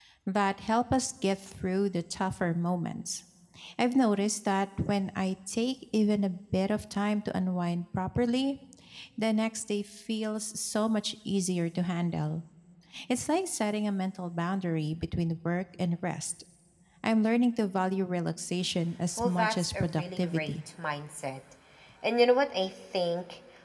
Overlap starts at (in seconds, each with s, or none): 19.2 s